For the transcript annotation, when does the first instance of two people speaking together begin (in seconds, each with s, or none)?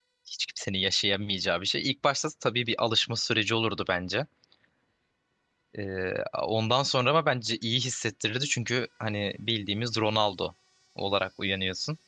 none